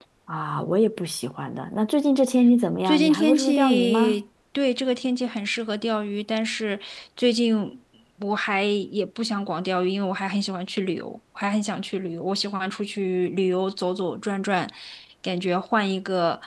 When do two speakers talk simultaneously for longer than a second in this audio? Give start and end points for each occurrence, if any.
2.8-4.2

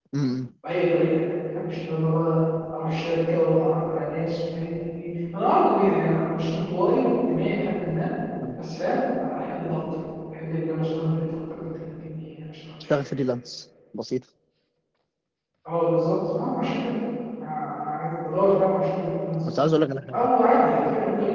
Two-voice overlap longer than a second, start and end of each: none

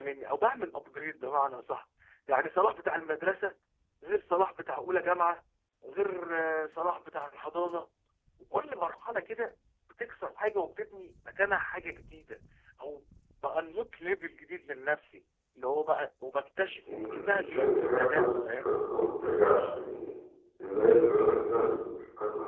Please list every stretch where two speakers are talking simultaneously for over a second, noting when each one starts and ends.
16.9-18.7

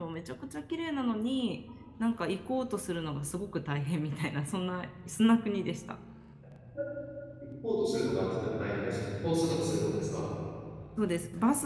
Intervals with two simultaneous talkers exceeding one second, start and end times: none

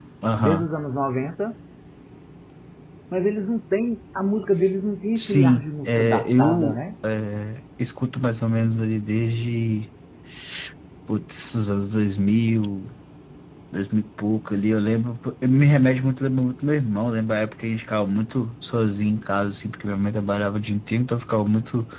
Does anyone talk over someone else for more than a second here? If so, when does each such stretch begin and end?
5.2-6.8

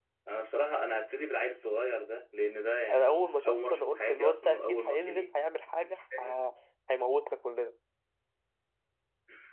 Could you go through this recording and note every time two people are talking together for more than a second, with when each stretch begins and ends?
2.9-5.3

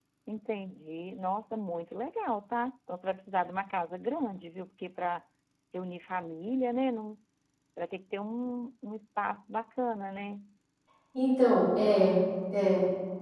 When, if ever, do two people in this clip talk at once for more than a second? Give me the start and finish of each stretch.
none

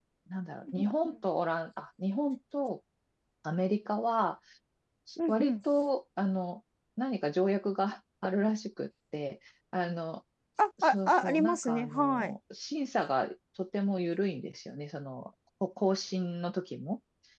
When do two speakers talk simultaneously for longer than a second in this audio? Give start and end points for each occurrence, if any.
10.8-12.3

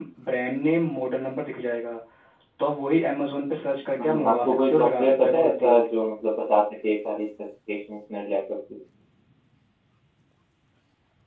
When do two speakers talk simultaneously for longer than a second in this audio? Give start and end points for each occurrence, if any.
4.0-5.8

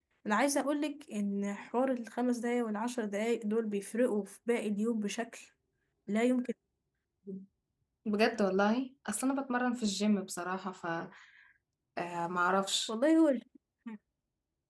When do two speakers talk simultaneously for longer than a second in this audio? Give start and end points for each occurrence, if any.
none

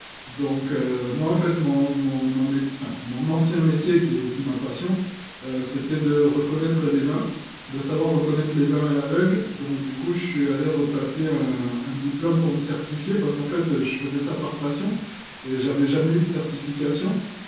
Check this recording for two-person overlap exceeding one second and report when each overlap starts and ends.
none

